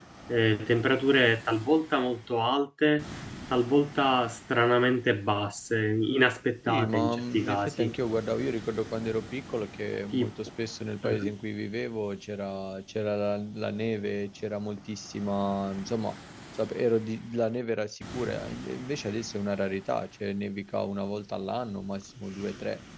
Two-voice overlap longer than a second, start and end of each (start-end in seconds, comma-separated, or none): 6.7-7.9